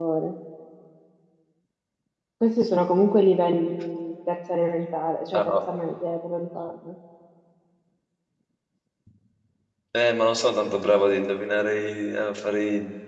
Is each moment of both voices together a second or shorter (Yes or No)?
Yes